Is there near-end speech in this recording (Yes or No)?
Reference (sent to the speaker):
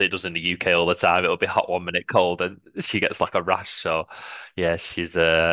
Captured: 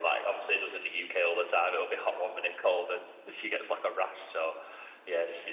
No